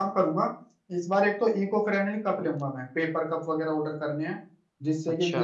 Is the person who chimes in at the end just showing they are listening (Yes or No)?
Yes